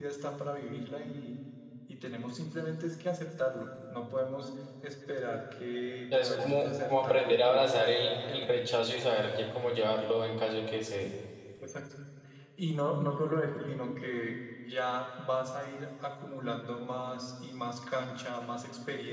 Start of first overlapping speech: 6.1 s

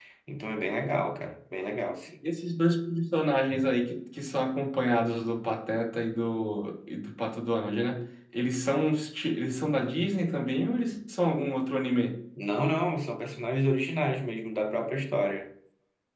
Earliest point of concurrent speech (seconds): none

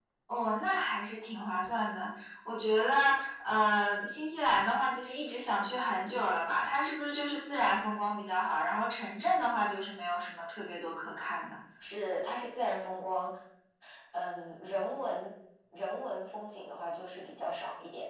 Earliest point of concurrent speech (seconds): none

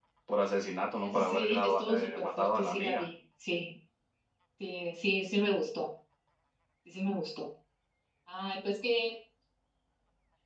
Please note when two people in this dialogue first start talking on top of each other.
1.0 s

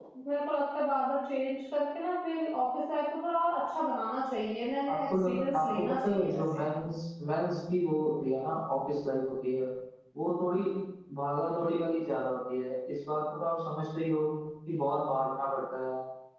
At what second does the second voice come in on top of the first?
4.9 s

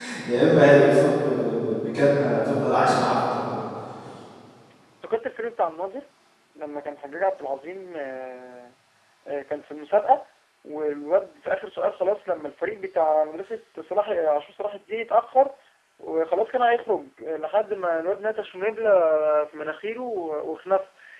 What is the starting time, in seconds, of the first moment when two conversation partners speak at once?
none

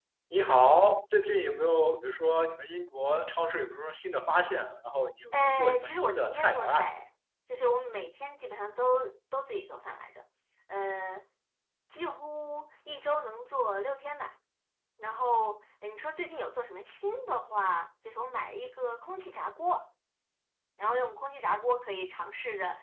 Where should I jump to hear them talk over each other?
5.3 s

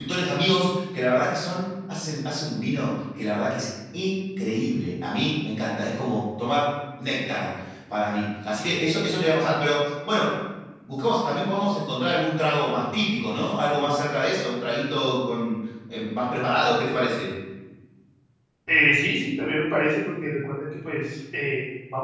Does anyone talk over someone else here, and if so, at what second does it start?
none

